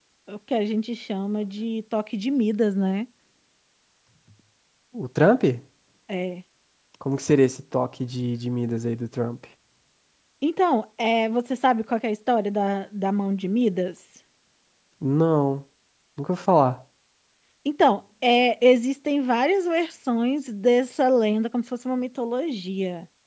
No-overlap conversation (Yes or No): Yes